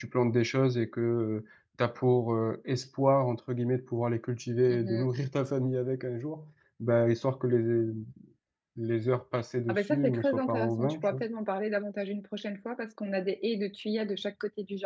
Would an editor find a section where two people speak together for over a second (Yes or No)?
Yes